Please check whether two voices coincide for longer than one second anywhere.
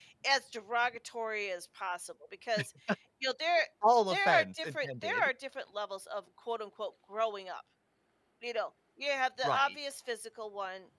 Yes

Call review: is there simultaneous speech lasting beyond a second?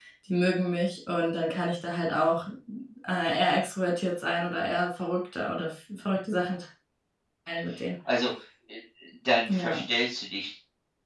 No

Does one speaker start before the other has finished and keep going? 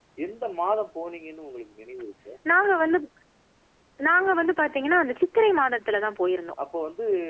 No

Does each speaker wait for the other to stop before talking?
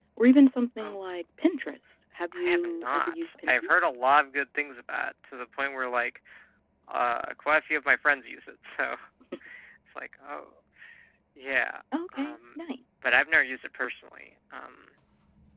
No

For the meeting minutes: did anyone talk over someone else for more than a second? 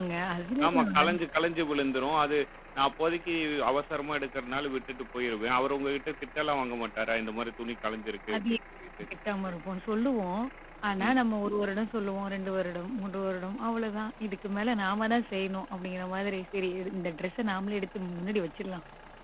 No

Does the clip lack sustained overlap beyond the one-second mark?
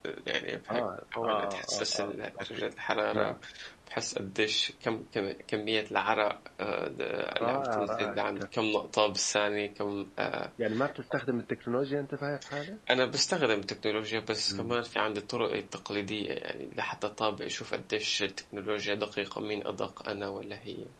No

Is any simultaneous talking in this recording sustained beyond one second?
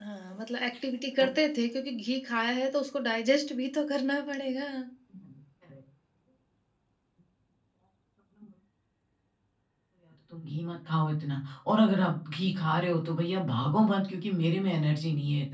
No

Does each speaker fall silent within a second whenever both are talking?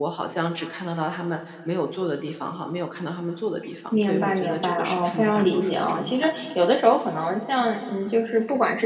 No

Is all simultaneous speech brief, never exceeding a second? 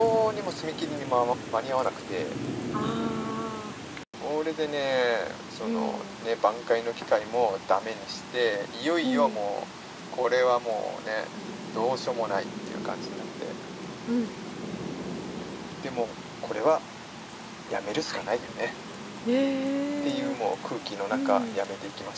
Yes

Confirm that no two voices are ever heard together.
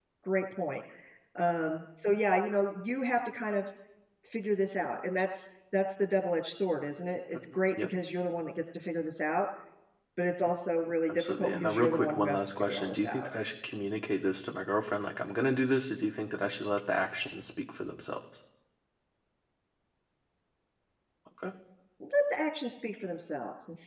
No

